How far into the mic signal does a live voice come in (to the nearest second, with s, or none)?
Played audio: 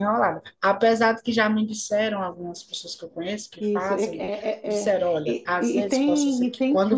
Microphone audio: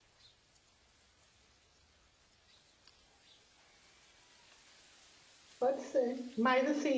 6 s